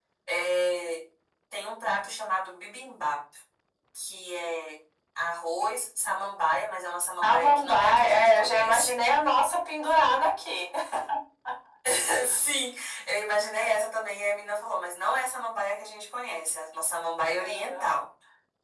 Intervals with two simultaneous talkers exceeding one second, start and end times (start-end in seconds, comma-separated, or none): 7.2-9.0